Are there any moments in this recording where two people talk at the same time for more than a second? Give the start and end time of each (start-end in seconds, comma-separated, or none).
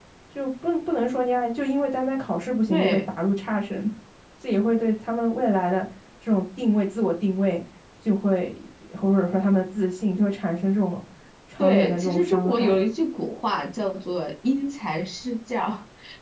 11.6-12.8